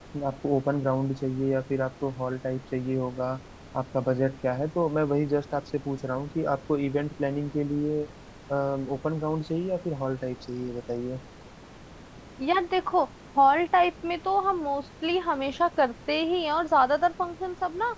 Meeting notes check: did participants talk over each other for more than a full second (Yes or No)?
No